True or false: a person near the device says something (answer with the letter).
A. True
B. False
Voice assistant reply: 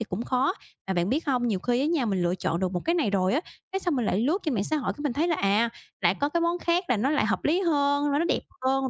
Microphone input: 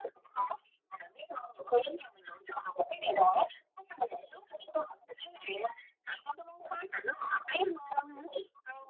B